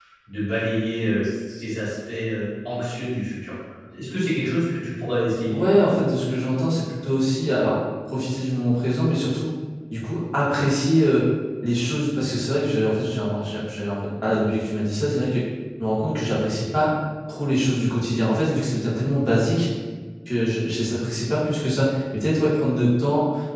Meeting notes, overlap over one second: none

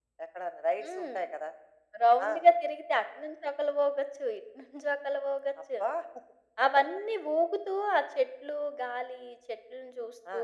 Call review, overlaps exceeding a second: none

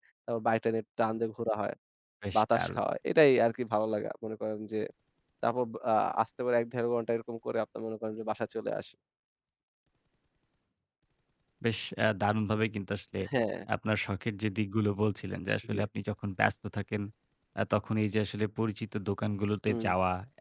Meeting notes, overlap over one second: none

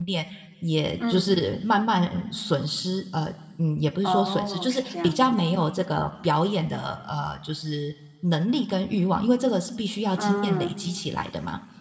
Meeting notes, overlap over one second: present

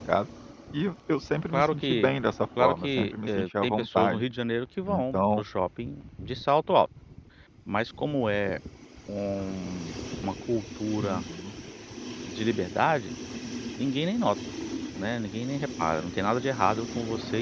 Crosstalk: present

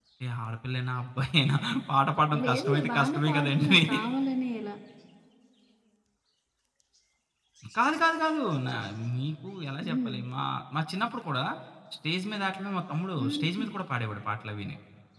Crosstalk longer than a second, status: present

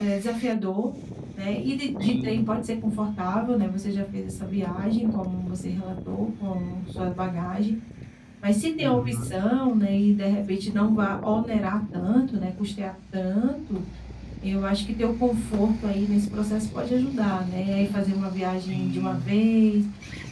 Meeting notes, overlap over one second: none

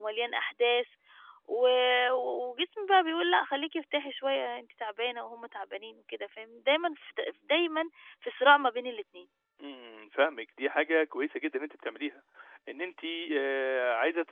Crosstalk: none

